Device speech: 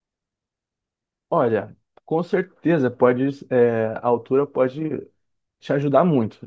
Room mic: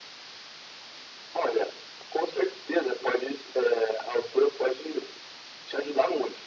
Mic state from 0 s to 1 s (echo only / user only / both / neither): neither